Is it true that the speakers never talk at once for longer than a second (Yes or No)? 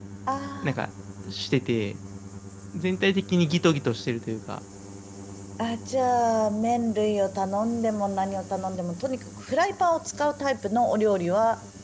Yes